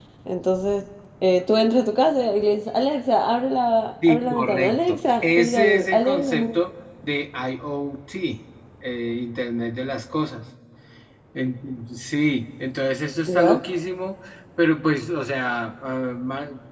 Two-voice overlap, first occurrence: 4.1 s

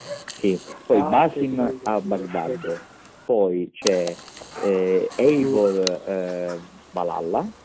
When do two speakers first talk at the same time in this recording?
0.9 s

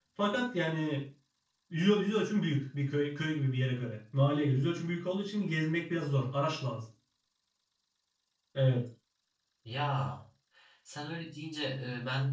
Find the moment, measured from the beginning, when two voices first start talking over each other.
none

